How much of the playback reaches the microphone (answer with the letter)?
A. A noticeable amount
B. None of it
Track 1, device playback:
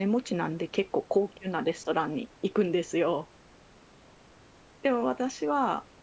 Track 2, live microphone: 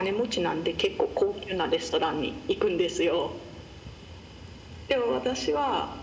A